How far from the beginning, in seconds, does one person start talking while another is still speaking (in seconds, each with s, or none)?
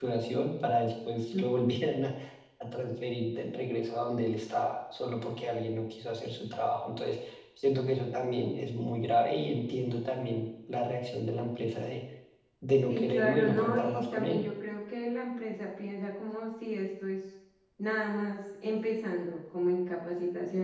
12.9 s